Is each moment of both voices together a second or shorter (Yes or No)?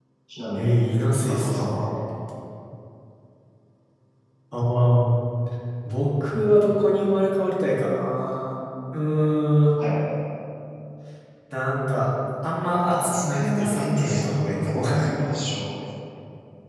No